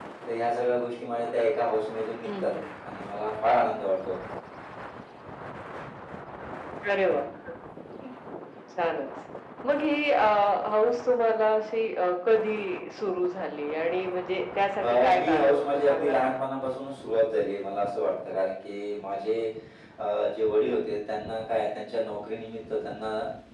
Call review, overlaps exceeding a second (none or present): present